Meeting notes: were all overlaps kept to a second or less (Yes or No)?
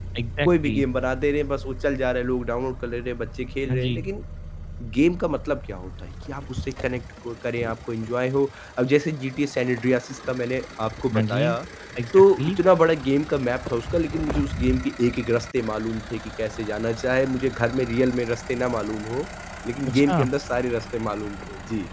Yes